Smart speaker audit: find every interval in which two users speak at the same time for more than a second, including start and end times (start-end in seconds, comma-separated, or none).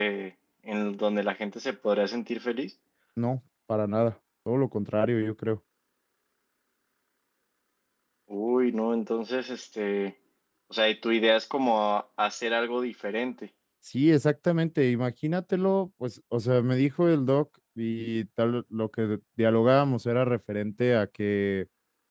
none